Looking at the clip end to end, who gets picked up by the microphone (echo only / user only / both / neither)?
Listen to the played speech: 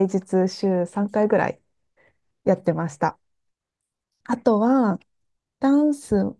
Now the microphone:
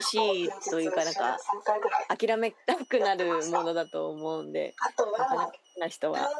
both